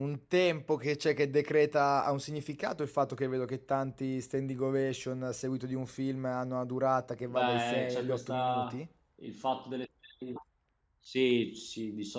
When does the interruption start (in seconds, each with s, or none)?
7.3 s